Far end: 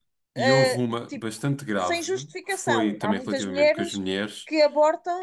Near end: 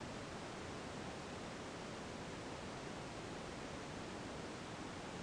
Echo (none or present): none